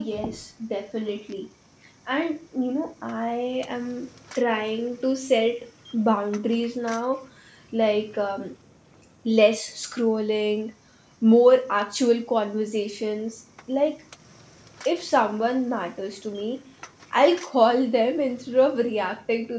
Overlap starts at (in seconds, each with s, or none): none